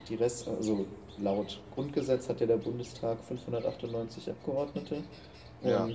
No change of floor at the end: Yes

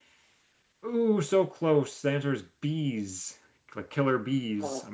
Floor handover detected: Yes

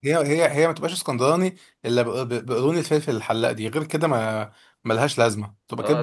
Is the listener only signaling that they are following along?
No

